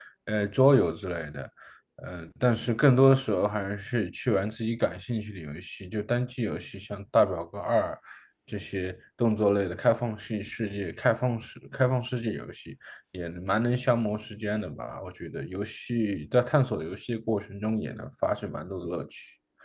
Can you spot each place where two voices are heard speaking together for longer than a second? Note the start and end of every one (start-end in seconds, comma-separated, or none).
none